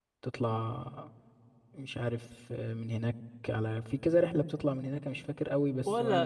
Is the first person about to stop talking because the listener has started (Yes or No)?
Yes